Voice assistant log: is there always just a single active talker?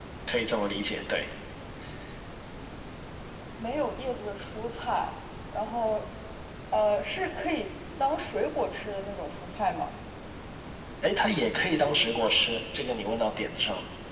Yes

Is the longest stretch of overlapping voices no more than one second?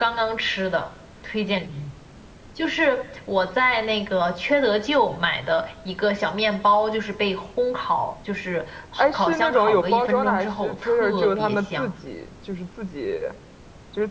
No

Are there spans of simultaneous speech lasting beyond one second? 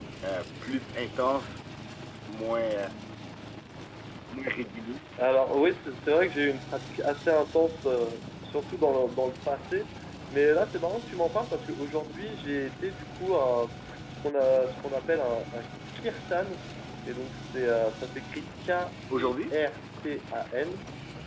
No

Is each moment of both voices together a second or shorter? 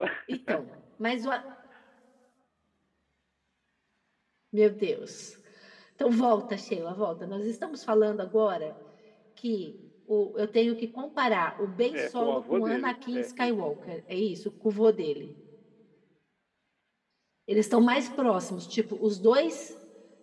No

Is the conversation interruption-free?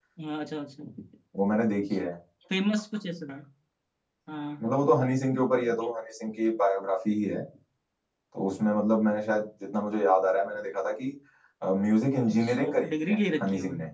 No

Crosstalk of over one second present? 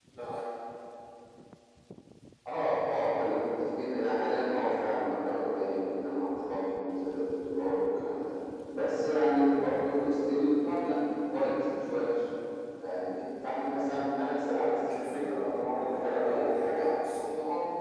Yes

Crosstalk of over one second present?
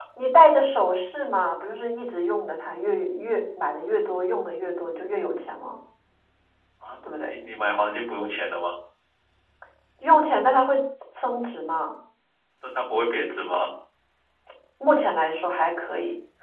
No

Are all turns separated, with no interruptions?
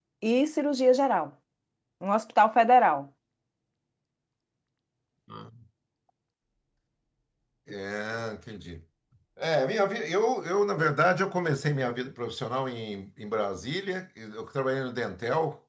Yes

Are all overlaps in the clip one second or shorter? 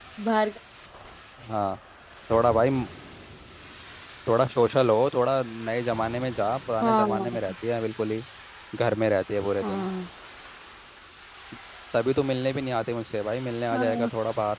Yes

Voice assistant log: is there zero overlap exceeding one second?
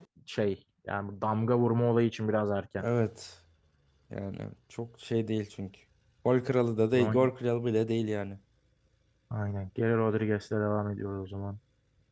Yes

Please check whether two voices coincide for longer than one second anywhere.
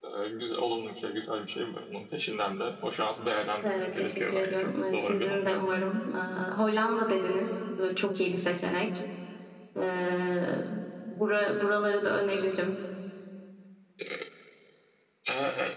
Yes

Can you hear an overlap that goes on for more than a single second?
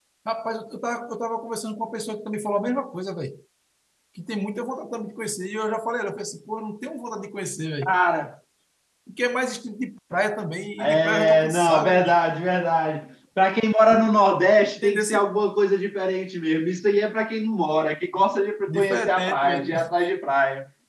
Yes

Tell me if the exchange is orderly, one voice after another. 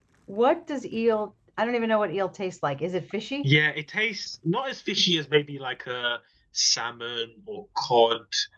Yes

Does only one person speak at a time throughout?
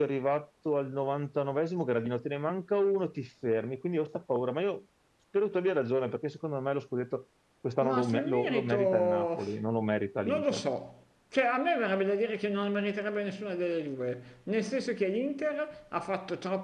No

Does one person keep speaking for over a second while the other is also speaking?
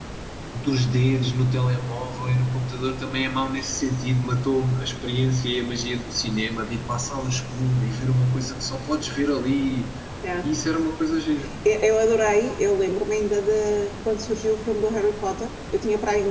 No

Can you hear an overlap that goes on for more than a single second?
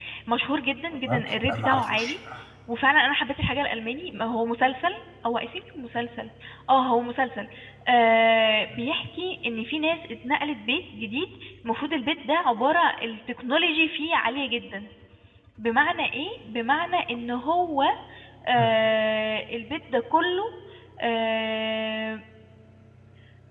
Yes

